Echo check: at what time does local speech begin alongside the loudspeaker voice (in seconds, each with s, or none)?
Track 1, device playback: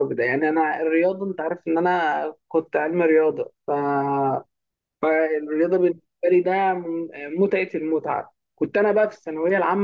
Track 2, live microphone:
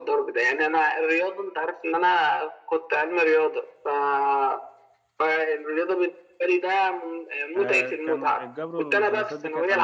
7.6 s